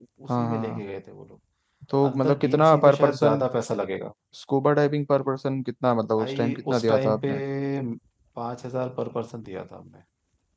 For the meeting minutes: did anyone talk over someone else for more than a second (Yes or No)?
Yes